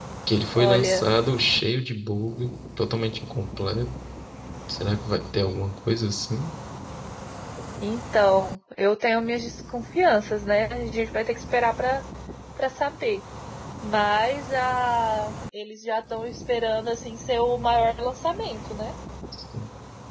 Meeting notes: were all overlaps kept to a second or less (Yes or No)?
Yes